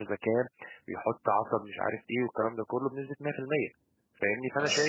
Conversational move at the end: listening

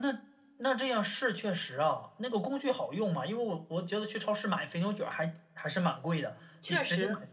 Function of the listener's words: listening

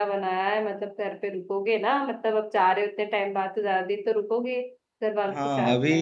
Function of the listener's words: taking over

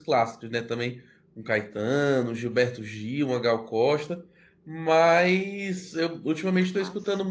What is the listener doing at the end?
listening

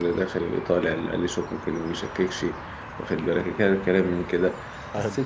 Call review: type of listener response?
listening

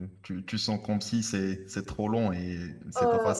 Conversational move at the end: listening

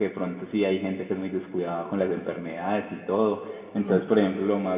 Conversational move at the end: listening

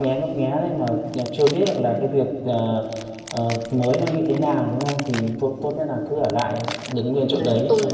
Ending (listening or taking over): taking over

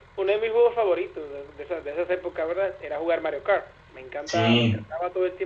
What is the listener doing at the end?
listening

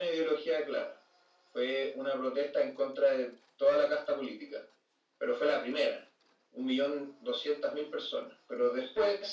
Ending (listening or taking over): listening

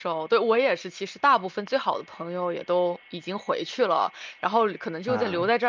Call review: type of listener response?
listening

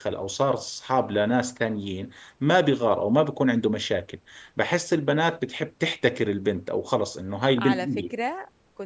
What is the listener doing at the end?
taking over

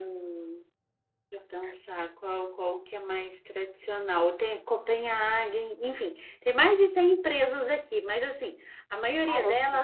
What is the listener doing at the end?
listening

